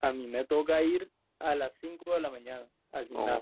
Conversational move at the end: taking over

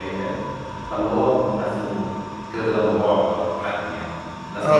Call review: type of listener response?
taking over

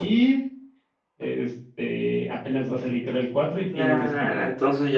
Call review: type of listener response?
taking over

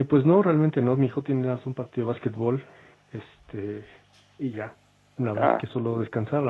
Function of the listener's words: listening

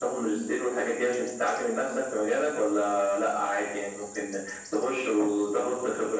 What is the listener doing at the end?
listening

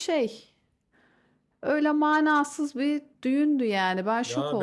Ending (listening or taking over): taking over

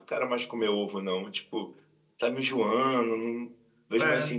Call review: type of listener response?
listening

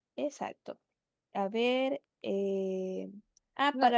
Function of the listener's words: listening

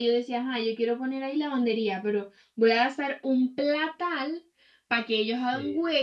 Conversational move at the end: listening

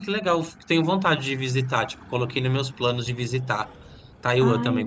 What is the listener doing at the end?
taking over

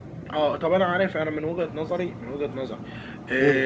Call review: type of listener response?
listening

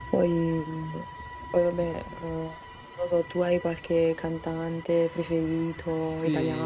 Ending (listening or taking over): taking over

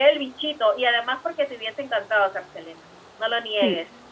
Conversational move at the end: taking over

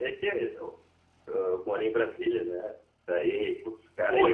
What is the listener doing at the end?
taking over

